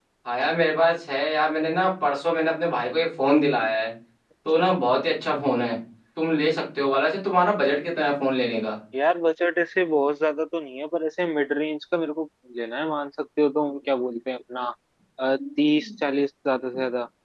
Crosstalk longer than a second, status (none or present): none